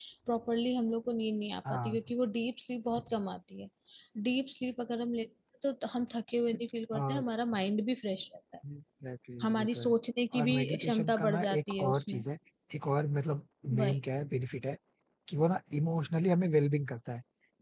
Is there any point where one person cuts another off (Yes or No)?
Yes